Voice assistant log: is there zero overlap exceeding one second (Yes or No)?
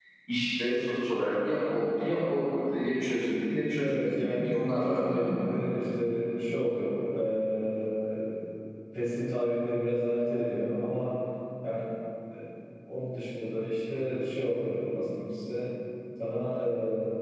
No